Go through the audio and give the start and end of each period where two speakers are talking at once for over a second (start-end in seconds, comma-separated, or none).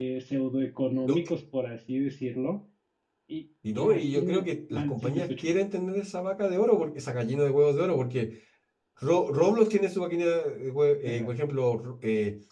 3.8-5.3